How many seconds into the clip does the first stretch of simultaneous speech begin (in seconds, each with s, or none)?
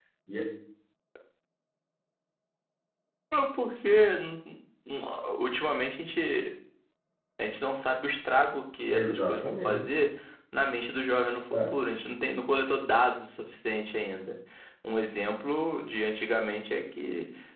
8.9 s